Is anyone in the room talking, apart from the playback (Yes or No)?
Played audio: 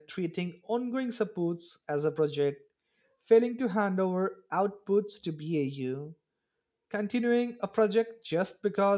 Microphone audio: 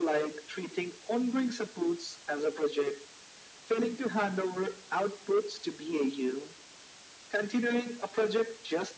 No